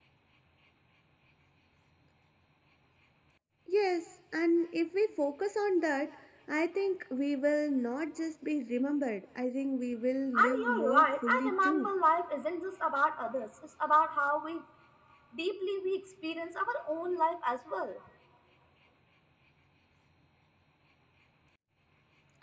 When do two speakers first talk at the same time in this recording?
10.3 s

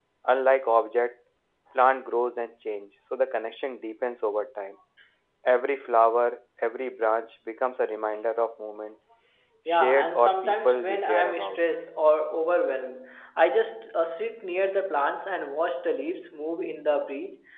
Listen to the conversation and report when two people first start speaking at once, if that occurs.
9.7 s

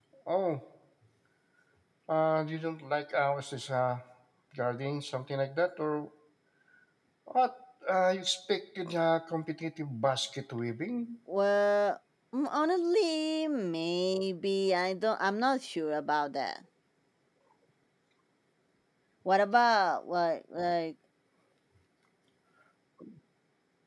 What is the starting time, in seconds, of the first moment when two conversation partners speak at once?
none

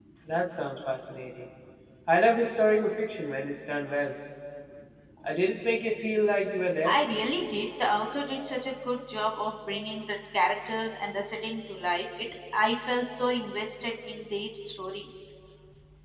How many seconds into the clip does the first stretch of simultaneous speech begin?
none

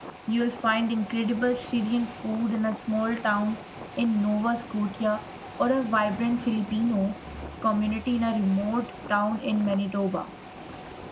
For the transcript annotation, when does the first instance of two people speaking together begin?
none

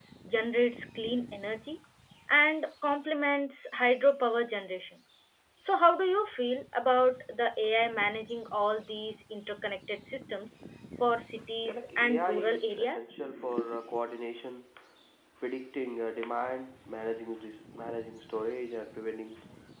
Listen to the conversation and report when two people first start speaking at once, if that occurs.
11.6 s

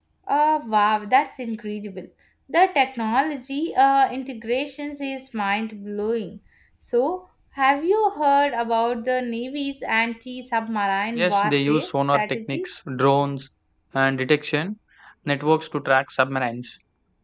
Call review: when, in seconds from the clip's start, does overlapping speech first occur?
11.2 s

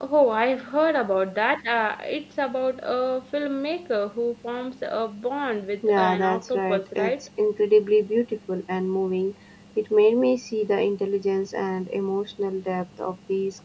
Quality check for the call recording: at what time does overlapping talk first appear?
5.8 s

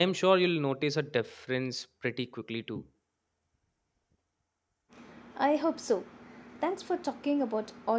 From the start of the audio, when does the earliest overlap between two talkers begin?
none

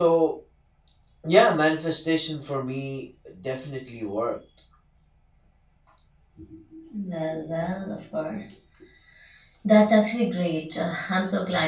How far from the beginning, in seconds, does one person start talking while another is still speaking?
none

